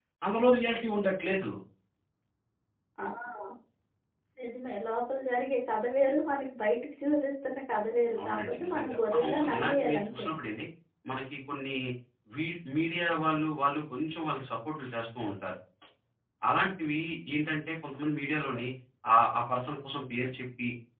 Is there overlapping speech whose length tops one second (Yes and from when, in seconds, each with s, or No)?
Yes, from 8.2 s